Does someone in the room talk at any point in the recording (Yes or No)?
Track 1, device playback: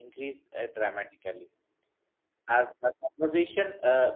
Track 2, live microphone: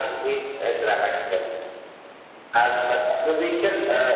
No